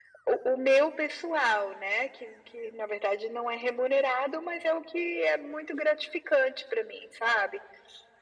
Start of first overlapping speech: none

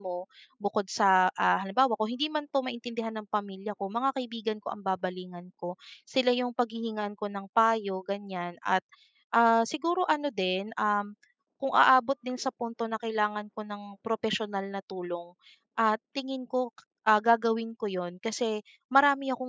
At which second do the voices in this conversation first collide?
none

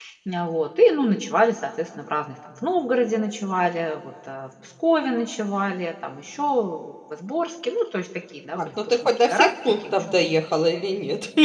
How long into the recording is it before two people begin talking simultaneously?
8.6 s

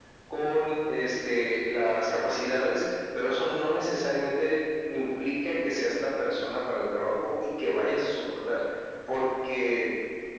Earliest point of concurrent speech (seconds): none

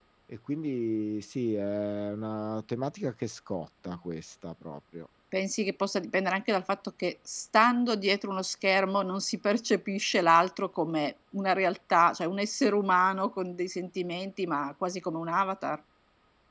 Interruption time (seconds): none

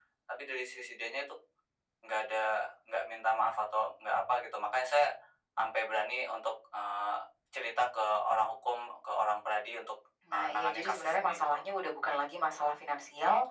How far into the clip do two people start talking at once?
10.2 s

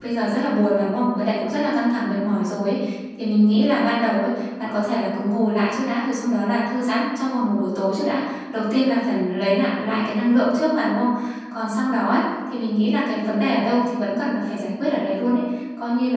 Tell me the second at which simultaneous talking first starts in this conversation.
none

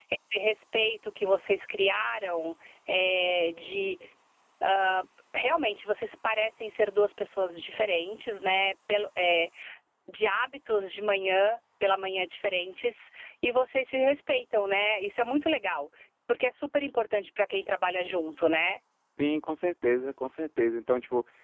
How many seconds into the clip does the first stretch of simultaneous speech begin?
none

